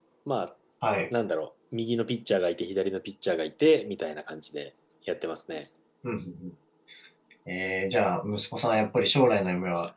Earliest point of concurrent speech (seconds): none

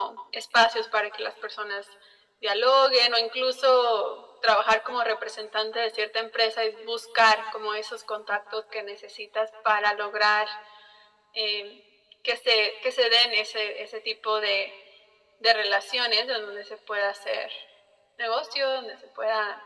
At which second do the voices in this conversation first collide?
none

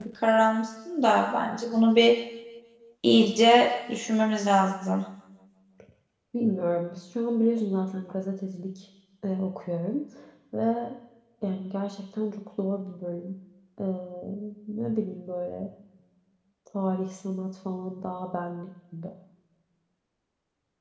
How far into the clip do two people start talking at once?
none

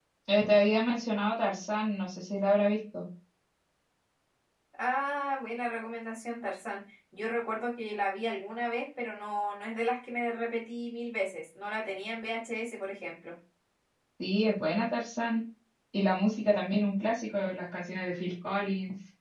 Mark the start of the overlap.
none

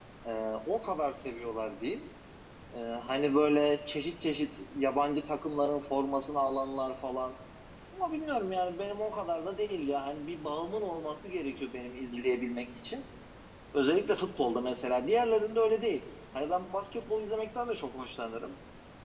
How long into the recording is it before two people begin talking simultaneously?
none

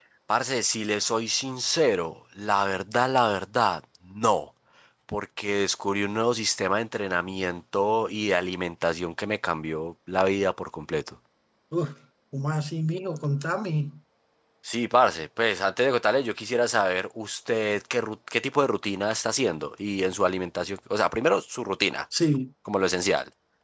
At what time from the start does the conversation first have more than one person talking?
none

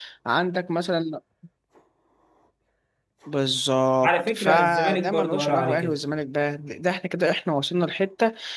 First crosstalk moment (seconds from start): 4.0 s

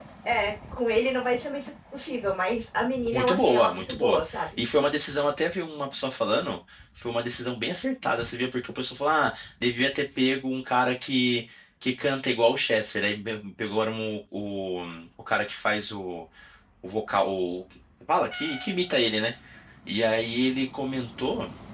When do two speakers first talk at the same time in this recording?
3.1 s

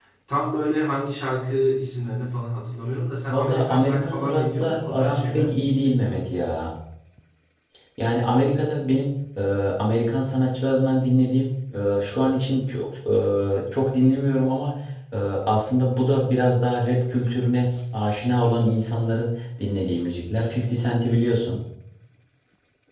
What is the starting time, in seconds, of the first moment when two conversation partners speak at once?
3.3 s

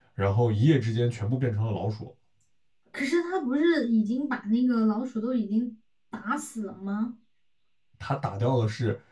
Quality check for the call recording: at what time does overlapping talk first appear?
none

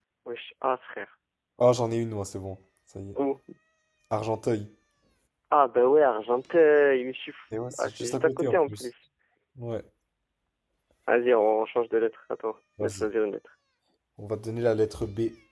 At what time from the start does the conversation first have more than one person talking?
7.6 s

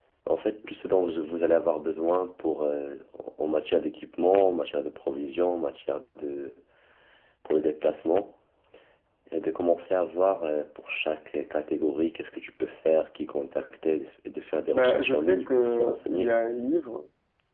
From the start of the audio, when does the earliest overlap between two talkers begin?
14.7 s

